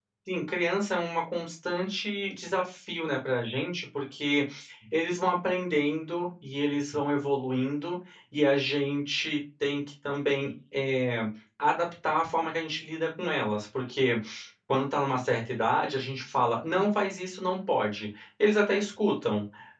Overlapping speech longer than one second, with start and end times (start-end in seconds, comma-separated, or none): none